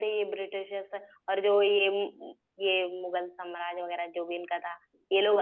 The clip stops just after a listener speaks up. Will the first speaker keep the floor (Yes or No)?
Yes